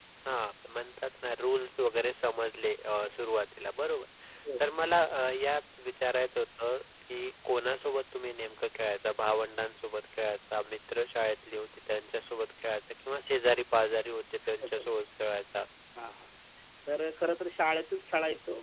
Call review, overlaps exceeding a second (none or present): none